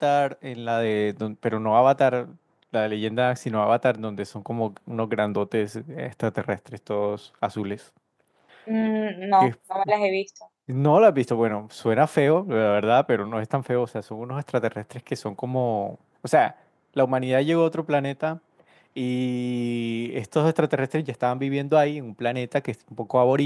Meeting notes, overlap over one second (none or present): none